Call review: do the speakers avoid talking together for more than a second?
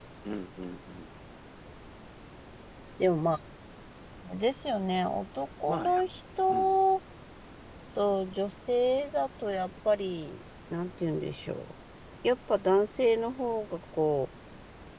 Yes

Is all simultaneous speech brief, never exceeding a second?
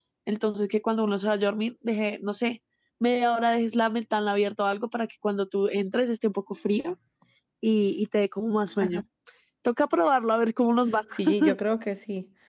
Yes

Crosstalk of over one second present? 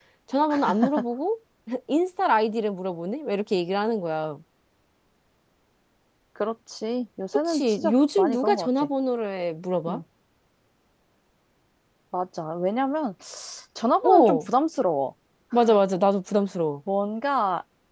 Yes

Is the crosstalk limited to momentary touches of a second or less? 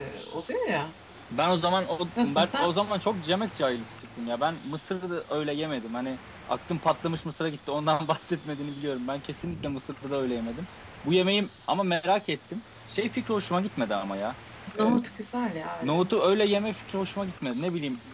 Yes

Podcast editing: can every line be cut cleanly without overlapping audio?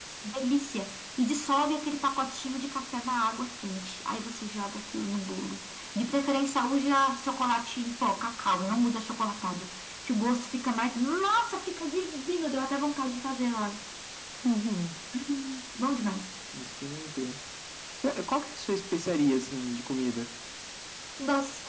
Yes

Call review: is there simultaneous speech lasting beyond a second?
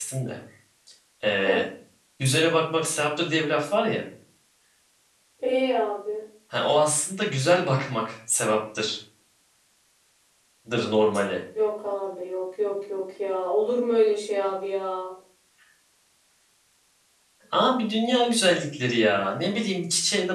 No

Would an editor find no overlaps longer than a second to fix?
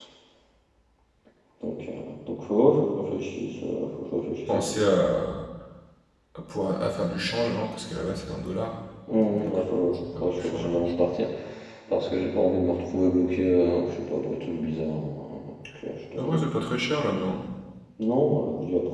No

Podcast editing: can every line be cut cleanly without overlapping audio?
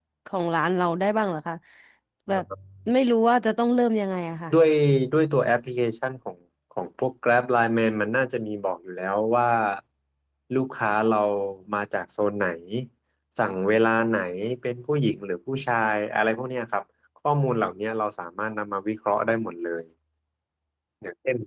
Yes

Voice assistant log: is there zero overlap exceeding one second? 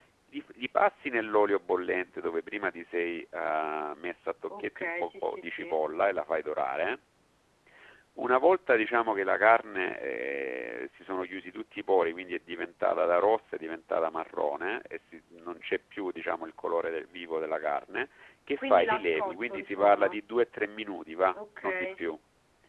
No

